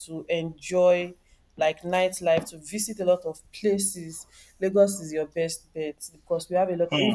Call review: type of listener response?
listening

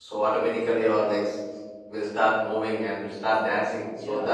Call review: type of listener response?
taking over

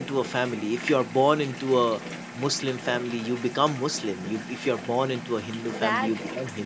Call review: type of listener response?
taking over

